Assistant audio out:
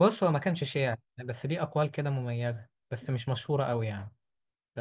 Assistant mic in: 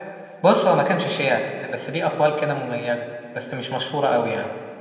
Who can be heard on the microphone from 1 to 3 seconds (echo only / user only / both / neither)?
echo only